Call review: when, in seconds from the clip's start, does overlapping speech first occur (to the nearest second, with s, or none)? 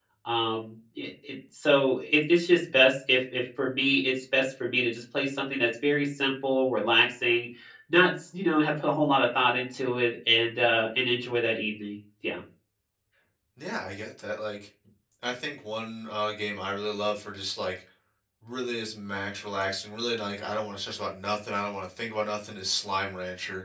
none